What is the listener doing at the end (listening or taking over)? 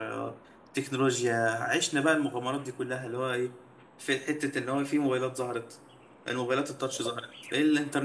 listening